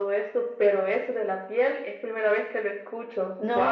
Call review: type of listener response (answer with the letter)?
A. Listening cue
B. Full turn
B